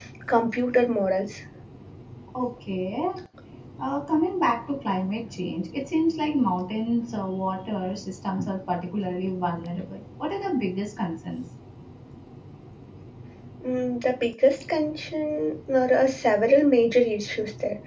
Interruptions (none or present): none